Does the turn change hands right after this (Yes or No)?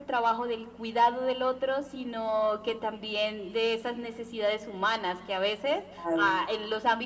No